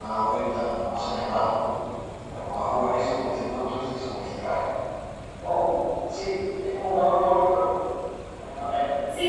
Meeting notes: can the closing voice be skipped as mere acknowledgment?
No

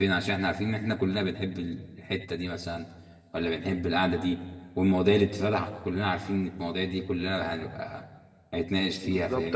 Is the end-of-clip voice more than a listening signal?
Yes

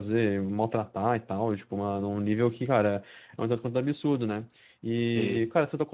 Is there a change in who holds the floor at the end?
No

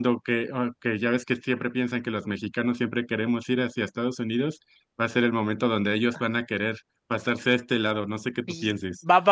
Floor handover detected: Yes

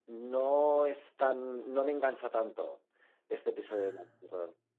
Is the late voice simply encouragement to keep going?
Yes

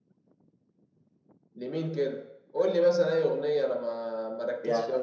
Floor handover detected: Yes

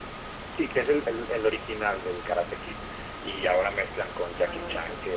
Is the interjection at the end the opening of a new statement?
No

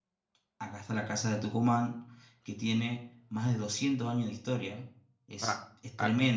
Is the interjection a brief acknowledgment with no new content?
Yes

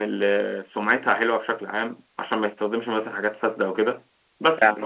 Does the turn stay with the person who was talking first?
Yes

